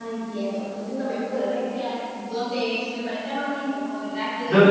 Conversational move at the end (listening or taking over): taking over